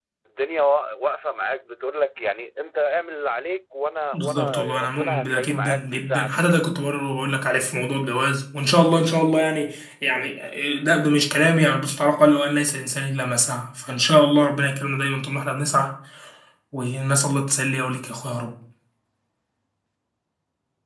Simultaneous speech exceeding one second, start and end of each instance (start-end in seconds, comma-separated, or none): 4.1-6.3